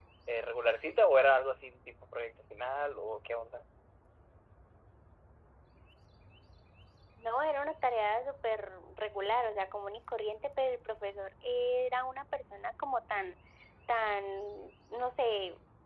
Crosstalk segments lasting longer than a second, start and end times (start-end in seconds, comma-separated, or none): none